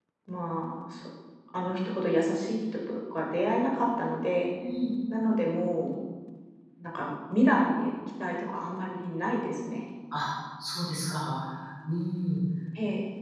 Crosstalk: none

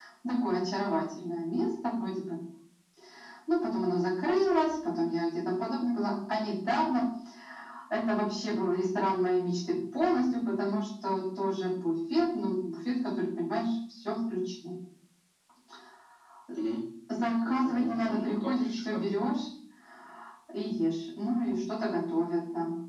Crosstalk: present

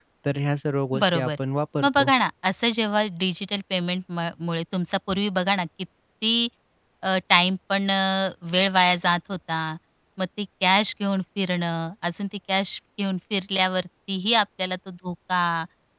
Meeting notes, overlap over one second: none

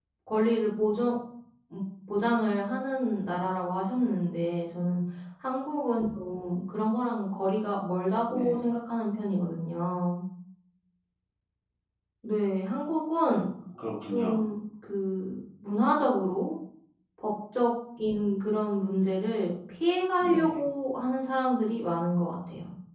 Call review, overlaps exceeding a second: none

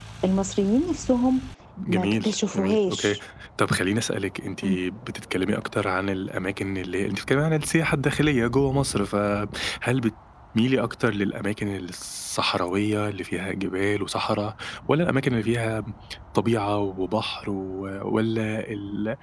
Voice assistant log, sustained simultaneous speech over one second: present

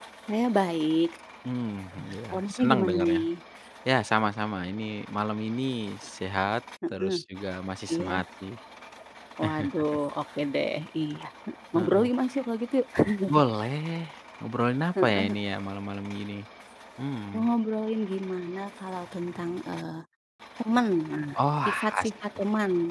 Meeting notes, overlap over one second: present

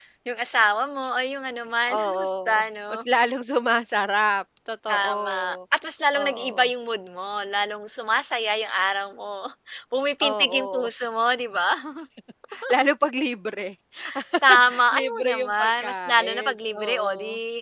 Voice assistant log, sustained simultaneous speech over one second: present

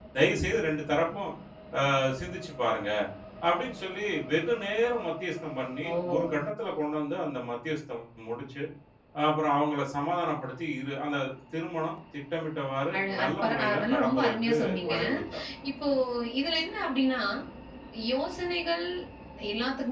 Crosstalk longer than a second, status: present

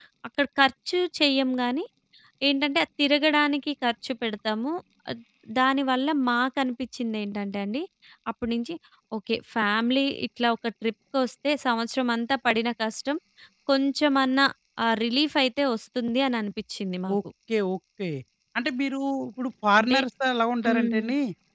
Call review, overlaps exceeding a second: none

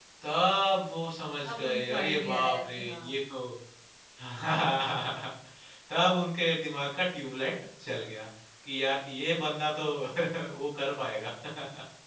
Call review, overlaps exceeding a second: present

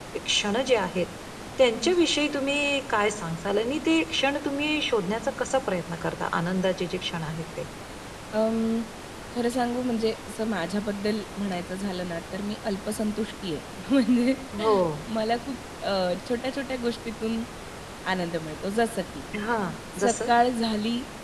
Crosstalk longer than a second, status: none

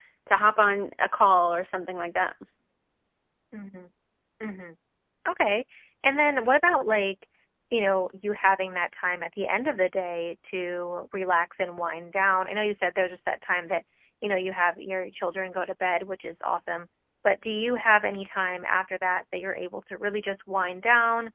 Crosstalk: none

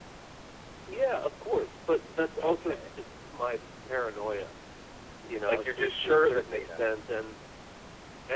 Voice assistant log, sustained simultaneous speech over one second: present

